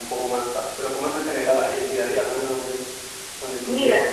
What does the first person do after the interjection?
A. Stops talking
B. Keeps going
A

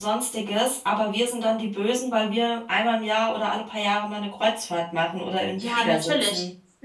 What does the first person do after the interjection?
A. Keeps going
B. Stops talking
B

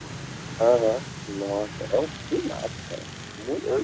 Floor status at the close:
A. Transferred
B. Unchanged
A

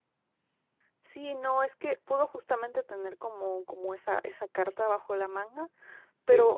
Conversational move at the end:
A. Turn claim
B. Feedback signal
B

